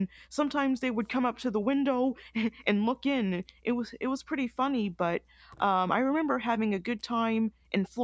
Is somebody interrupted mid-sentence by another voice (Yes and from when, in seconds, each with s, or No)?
No